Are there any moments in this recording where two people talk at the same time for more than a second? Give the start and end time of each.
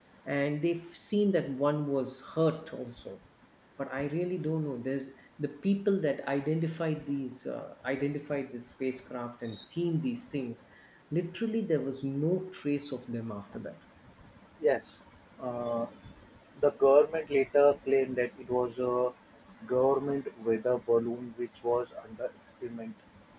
none

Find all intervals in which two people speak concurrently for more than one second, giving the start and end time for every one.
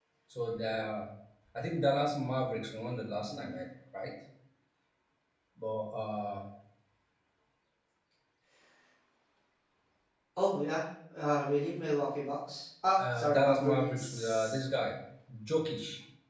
13.1-14.6

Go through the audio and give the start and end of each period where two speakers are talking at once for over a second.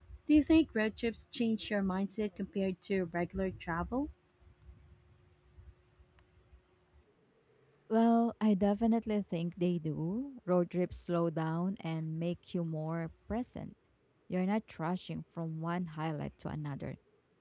none

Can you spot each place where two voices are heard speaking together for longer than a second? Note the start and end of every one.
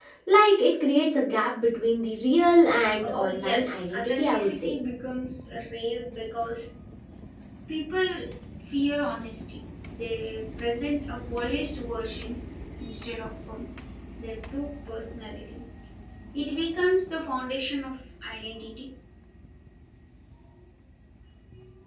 3.0-4.8

